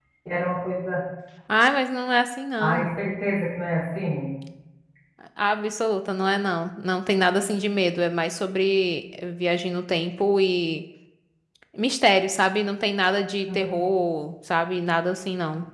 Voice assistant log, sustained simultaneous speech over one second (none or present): none